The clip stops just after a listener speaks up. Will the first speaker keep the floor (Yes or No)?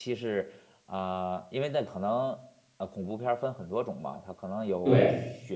Yes